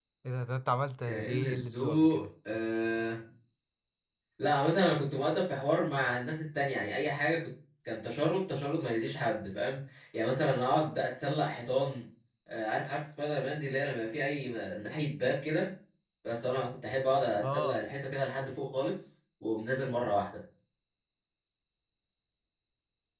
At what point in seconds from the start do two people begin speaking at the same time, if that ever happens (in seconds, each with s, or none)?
1.0 s